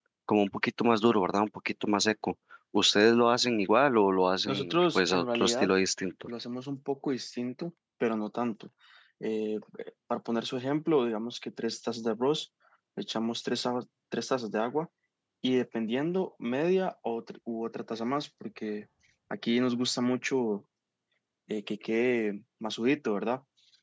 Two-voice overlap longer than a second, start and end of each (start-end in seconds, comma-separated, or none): 4.5-5.7